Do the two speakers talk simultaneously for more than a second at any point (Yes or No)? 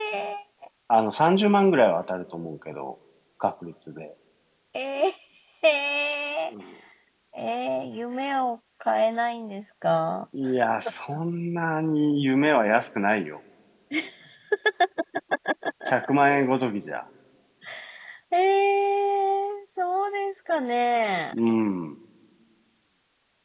No